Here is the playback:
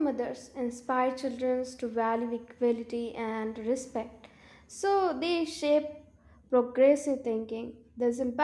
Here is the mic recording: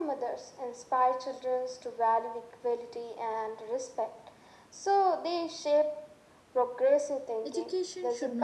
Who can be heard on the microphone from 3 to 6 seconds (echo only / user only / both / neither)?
echo only